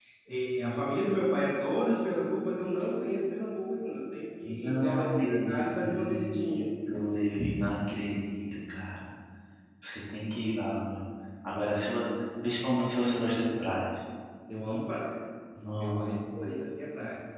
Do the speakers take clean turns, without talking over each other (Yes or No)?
No